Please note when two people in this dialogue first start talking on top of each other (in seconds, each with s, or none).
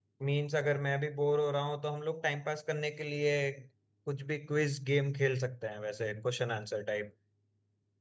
none